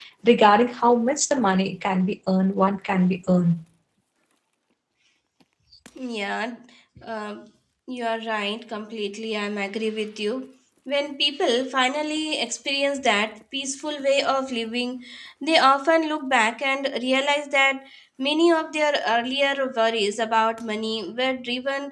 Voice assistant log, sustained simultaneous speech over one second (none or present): none